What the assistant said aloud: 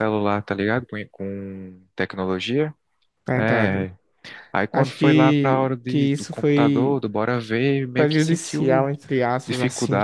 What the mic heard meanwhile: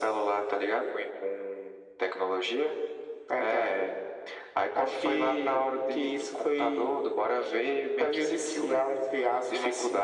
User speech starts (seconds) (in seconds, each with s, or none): none